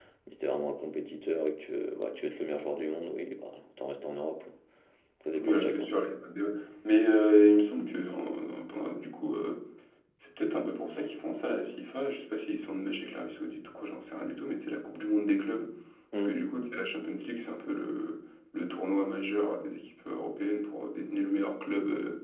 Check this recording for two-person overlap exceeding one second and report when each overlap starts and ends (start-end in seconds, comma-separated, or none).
none